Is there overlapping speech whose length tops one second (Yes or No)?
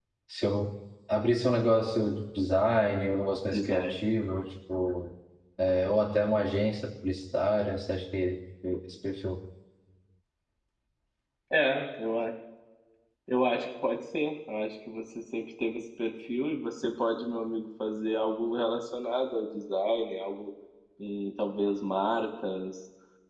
No